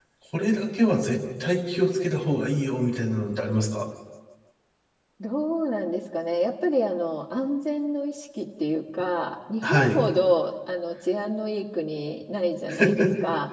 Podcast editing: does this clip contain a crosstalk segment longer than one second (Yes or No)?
No